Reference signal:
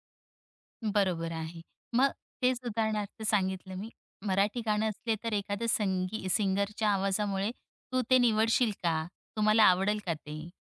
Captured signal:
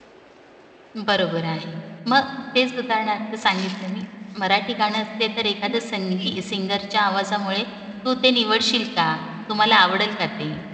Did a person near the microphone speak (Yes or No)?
Yes